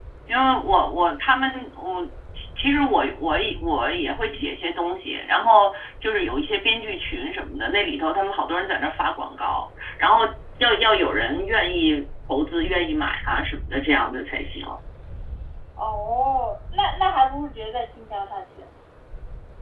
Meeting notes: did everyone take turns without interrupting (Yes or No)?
Yes